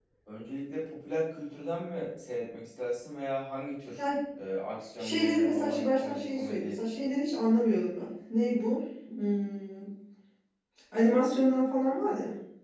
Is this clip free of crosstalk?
No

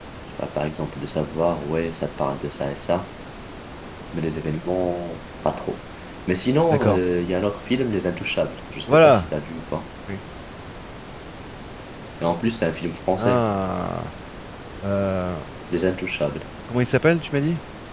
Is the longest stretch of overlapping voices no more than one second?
Yes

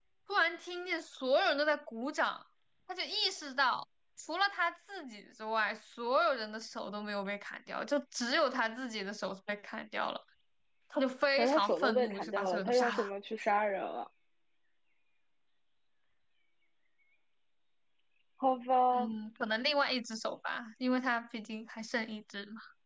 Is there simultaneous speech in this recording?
Yes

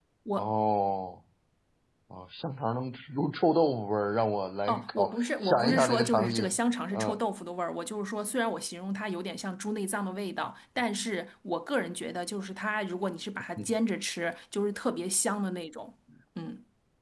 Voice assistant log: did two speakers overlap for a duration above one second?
Yes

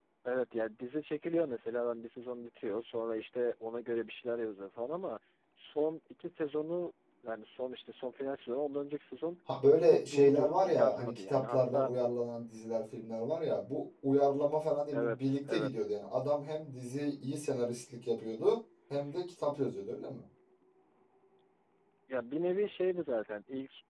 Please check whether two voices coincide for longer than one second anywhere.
Yes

